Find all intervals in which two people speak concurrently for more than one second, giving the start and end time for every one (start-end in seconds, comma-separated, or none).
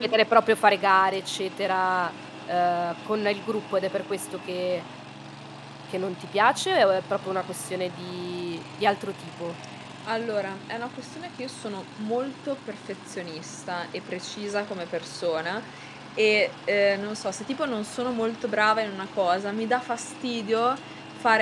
none